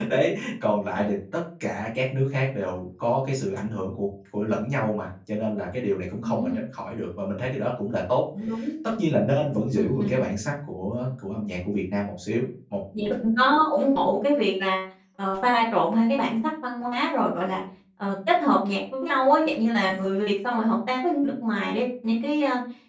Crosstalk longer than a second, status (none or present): none